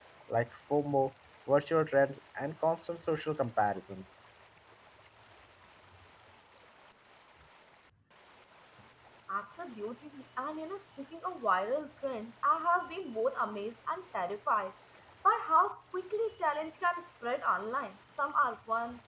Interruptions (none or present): none